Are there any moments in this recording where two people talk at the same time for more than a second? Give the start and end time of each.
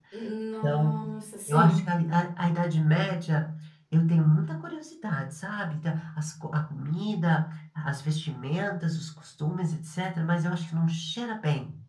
none

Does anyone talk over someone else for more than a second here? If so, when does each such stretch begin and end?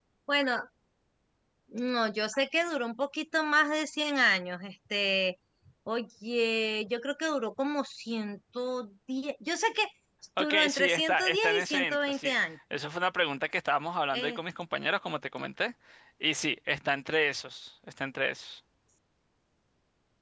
10.4-12.3

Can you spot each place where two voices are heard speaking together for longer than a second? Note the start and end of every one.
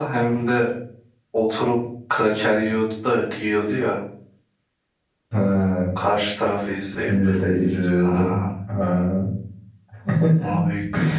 none

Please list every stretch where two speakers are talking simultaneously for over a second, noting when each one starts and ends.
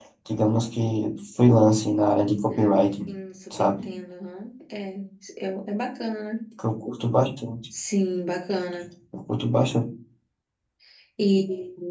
none

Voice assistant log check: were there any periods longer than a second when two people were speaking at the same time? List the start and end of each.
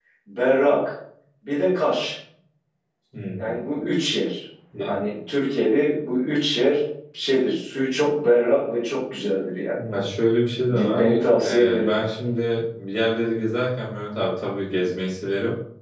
10.7-12.0

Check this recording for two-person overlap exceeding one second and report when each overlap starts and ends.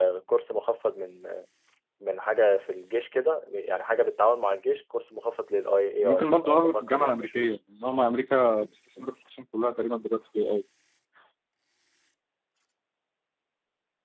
6.0-7.4

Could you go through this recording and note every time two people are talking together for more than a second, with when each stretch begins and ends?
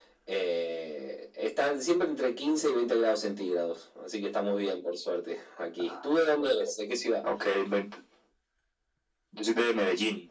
none

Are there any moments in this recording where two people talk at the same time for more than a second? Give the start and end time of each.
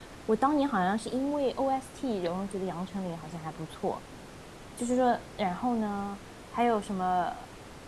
none

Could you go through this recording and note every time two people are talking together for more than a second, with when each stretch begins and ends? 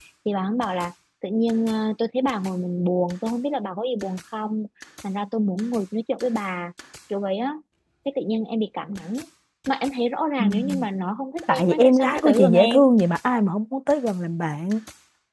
11.5-12.8

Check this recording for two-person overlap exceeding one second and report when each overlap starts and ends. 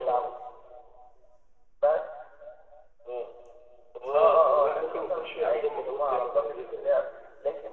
4.1-6.9

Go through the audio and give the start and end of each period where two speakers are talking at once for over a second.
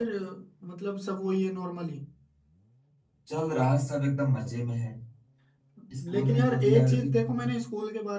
6.1-7.5

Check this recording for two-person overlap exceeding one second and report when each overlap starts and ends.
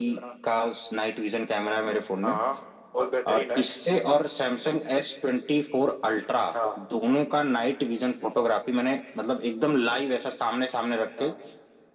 none

